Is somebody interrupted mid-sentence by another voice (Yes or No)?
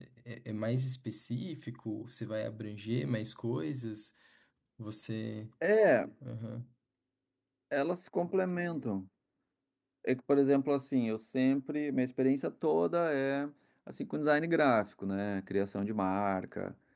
No